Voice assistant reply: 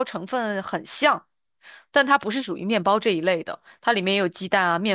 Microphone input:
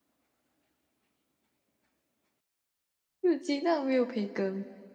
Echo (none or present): none